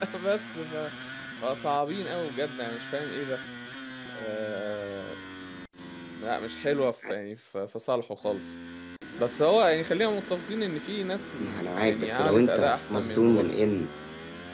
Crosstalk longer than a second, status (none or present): present